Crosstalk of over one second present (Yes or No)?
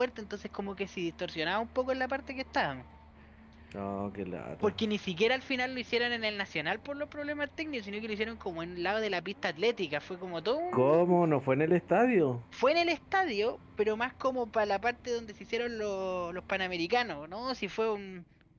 No